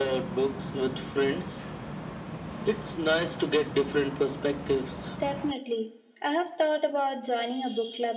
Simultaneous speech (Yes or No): No